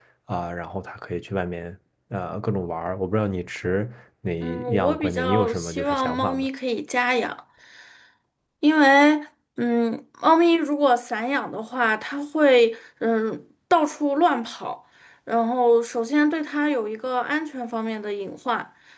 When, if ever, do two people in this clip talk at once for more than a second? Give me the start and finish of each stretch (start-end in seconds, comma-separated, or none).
4.4-6.5